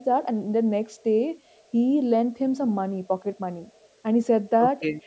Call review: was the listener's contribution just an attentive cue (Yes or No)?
Yes